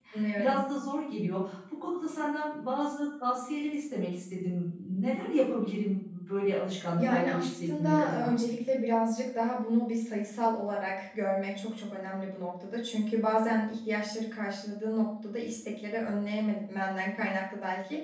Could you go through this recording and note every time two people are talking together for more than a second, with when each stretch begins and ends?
7.0-8.3

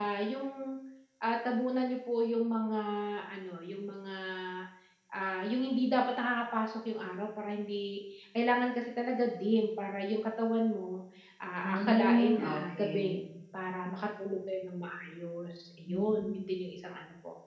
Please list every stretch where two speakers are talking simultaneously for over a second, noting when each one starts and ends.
11.6-13.2

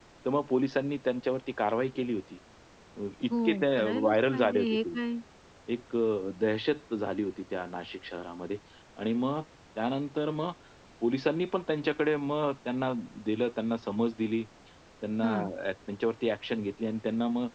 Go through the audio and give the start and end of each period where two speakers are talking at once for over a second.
3.3-5.0

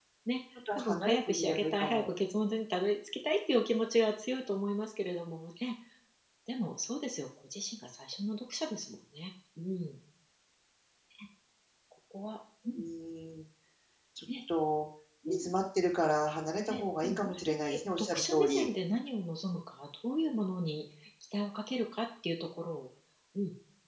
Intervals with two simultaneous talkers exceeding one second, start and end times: 0.8-2.1, 16.7-18.7

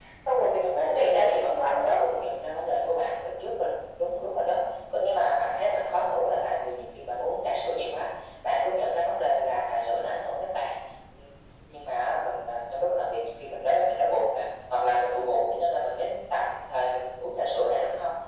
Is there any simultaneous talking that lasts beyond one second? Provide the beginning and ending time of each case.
0.6-2.0

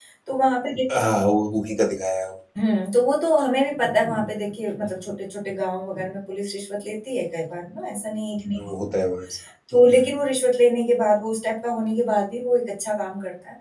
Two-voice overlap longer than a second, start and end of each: none

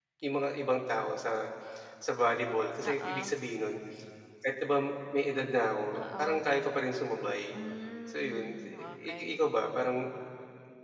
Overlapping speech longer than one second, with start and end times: 8.1-9.4

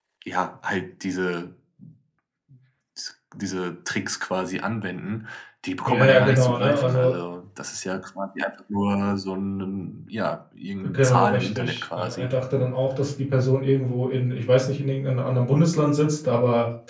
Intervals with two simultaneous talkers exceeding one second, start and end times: 5.9-7.1, 10.9-12.3

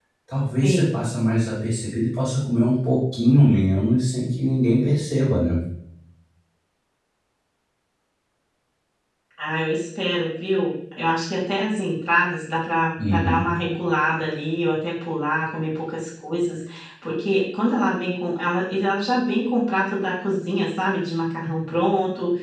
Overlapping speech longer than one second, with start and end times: none

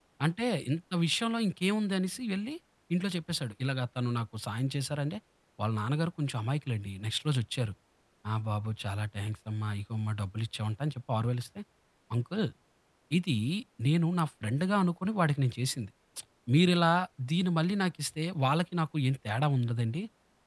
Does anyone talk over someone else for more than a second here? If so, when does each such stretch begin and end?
none

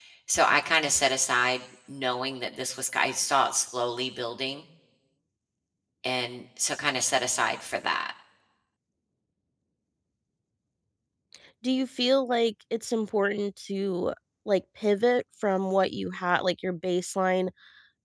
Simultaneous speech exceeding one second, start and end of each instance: none

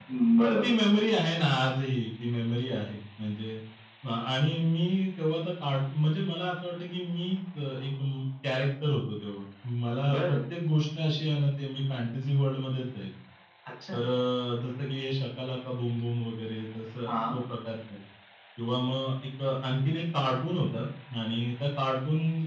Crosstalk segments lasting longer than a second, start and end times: none

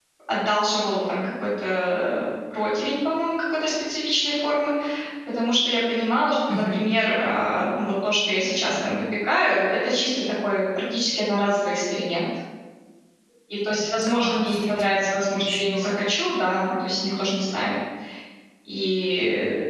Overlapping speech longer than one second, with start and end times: 14.0-16.0

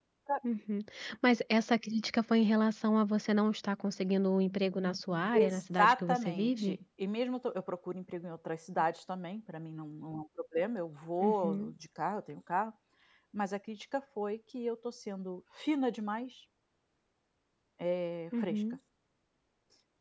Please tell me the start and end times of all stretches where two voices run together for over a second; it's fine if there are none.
5.3-6.8

